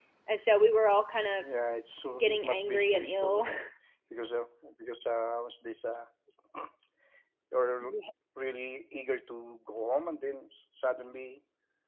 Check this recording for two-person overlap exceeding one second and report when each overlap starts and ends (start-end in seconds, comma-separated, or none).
2.2-3.4